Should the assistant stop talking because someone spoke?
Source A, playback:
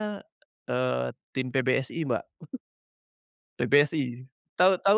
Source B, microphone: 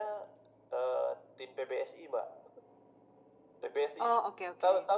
Yes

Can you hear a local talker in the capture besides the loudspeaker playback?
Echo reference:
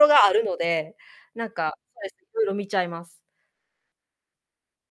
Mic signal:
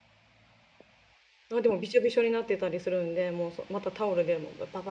Yes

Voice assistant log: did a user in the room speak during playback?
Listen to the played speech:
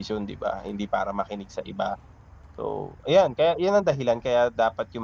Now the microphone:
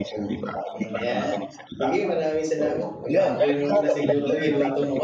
Yes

